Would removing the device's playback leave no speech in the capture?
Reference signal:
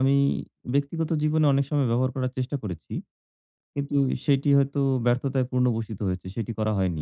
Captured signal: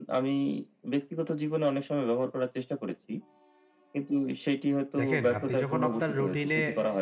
No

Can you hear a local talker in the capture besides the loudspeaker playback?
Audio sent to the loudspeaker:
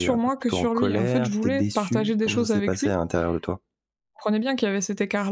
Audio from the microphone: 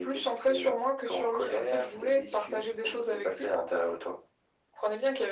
No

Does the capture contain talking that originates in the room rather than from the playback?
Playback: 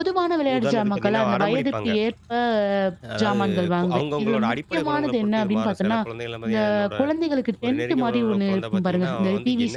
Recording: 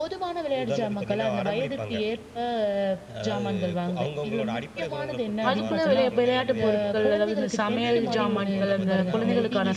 Yes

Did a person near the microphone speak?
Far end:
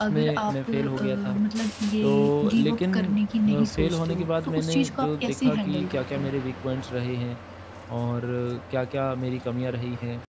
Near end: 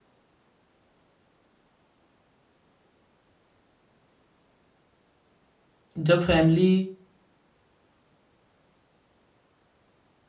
Yes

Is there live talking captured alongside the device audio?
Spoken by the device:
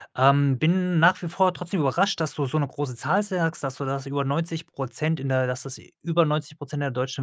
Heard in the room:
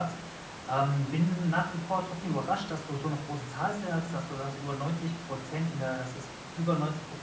No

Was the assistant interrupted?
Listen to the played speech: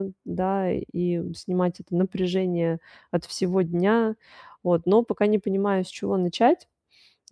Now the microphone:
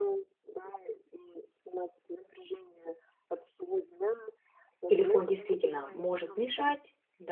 Yes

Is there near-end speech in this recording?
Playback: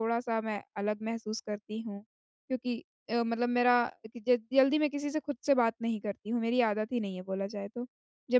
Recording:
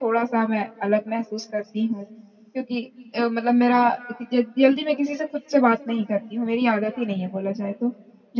No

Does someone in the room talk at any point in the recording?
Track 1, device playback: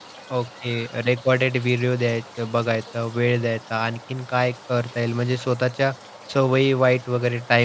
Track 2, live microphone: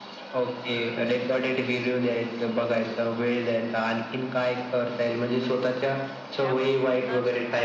Yes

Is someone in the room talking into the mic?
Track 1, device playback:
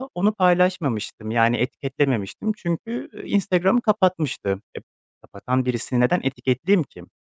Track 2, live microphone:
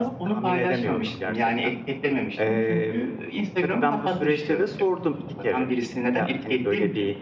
Yes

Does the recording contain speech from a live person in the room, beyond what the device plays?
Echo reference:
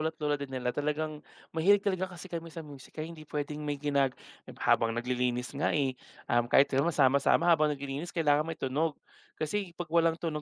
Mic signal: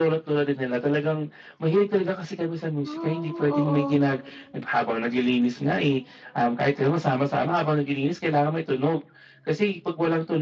Yes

